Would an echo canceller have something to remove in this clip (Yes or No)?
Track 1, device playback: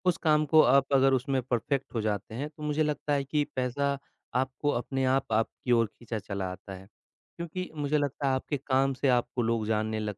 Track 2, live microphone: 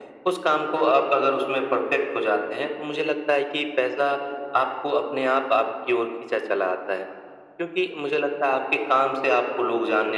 Yes